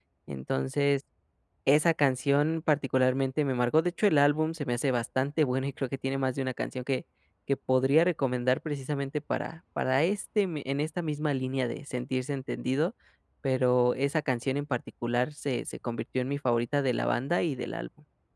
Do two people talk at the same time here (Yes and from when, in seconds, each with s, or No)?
No